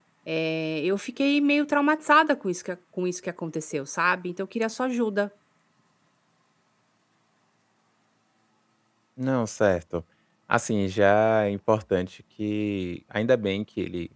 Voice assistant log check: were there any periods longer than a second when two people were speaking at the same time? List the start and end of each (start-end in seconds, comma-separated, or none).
none